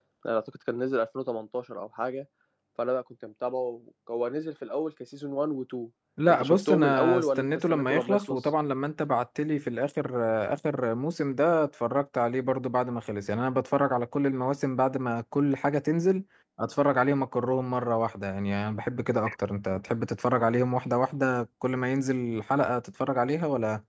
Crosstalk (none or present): present